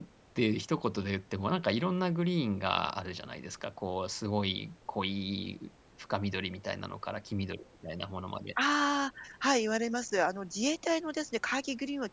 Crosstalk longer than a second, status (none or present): none